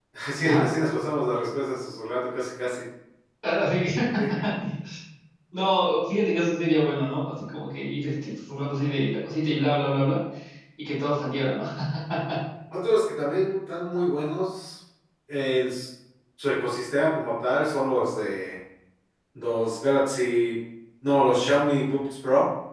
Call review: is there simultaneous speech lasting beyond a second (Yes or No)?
No